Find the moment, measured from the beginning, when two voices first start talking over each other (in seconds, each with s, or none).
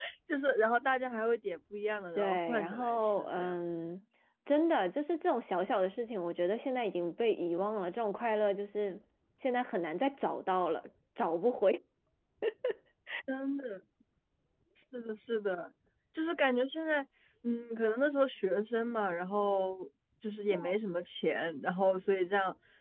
2.2 s